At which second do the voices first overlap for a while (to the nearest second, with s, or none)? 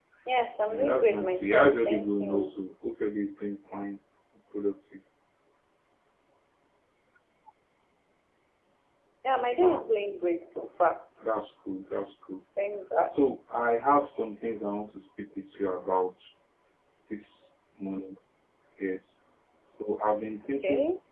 1 s